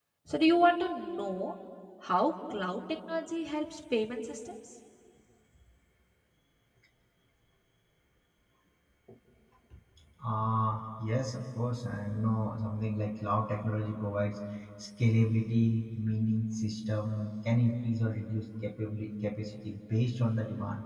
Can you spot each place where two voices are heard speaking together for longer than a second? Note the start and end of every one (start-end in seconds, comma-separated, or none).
none